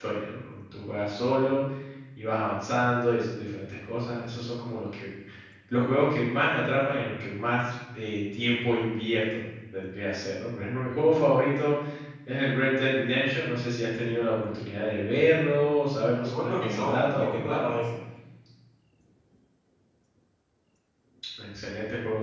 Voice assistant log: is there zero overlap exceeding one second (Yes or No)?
No